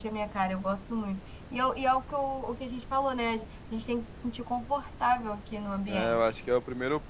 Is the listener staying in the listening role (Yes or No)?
No